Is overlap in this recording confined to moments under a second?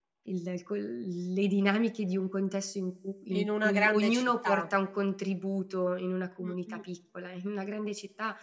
No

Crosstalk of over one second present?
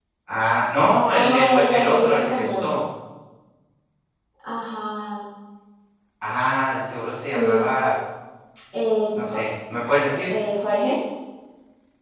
Yes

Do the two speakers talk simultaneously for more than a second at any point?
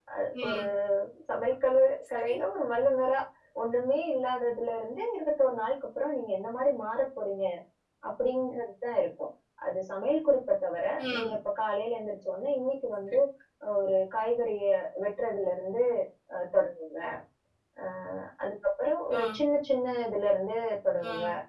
No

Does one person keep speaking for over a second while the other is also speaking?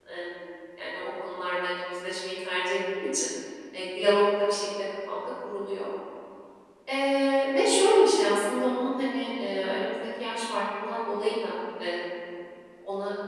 No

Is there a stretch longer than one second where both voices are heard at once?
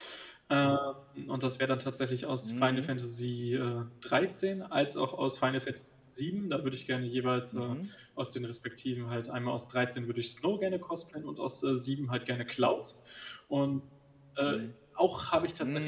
No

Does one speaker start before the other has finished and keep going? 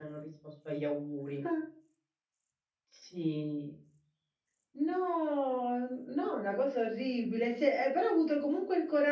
No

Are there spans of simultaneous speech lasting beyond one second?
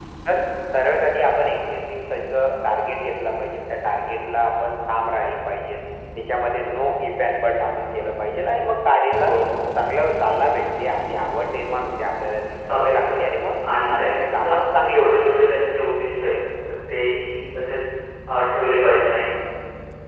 Yes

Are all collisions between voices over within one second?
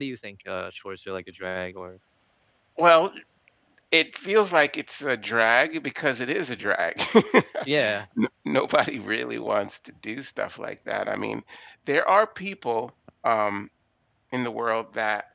Yes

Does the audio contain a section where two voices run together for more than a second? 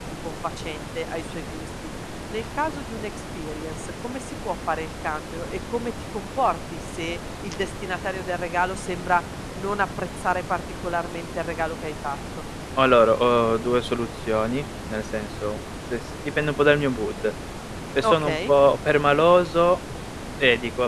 No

